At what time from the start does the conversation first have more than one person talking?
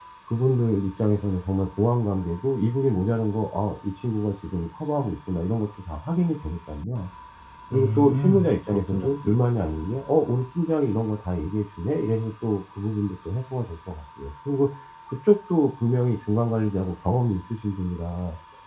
8 s

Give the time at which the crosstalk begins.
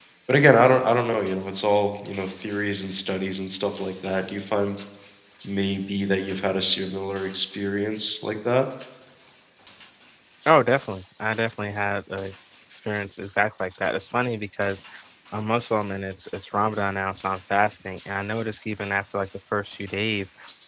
none

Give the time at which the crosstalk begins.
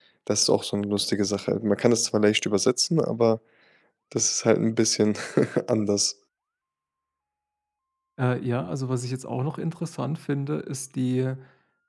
none

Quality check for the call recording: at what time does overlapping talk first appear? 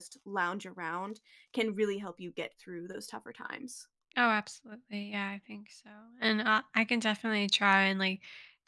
none

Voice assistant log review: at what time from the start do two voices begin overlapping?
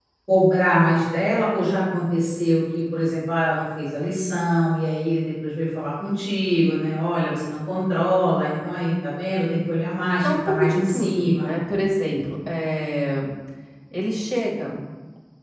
10 s

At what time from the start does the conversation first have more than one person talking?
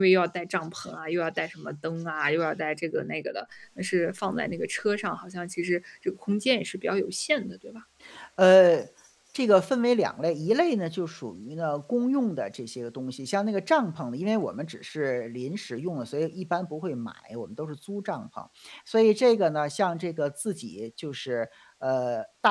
none

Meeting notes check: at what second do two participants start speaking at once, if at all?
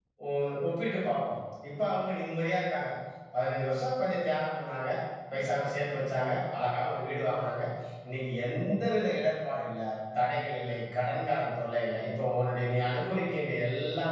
none

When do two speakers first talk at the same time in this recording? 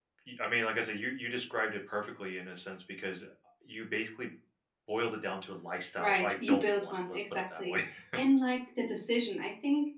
6 s

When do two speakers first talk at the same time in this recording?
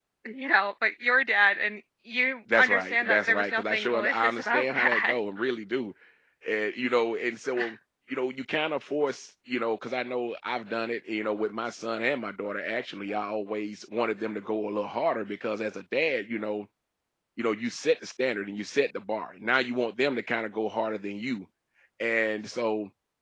2 s

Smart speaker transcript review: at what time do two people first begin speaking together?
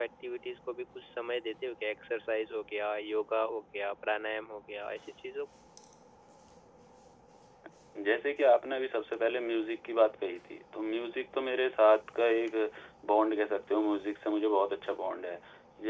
none

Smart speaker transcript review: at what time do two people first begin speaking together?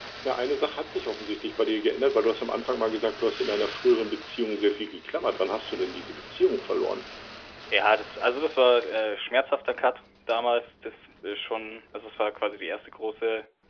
none

